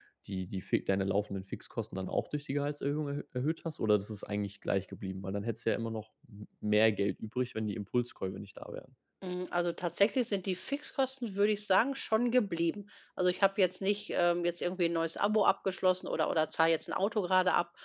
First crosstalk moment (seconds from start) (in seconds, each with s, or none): none